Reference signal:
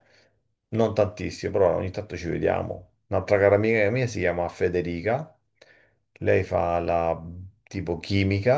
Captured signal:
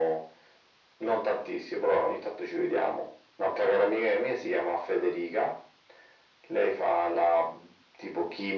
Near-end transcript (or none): none